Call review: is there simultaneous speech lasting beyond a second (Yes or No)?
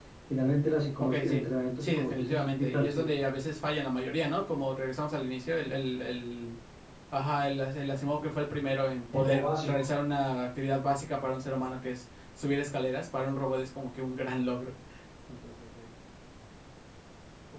Yes